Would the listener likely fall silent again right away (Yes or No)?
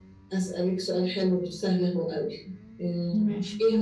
Yes